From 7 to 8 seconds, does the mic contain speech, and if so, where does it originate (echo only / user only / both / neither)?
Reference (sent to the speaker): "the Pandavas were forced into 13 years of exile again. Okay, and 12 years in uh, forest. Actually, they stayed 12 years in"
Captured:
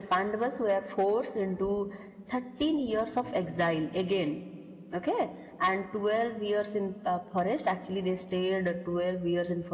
echo only